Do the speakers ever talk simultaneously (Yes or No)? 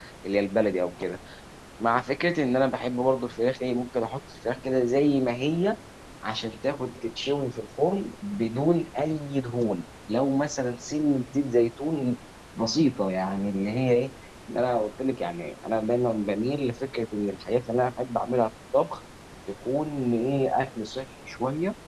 No